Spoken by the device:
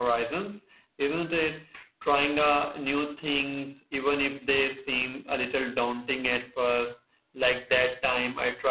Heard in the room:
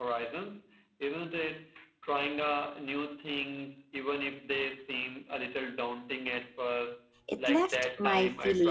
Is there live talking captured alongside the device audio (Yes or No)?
Yes